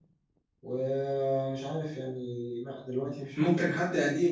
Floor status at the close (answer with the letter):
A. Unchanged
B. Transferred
B